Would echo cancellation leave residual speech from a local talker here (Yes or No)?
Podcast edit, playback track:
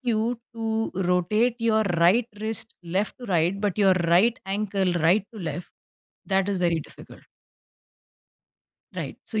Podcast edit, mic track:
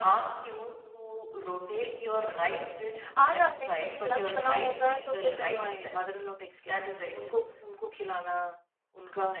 Yes